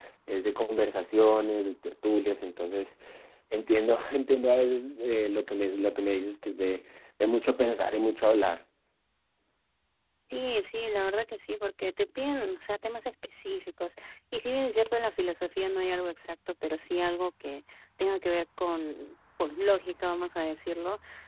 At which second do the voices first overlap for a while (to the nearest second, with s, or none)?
none